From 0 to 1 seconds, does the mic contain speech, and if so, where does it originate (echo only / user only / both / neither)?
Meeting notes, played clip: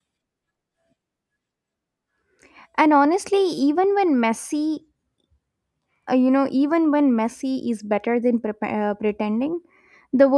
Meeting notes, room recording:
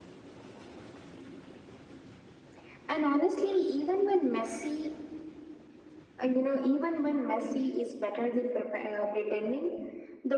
neither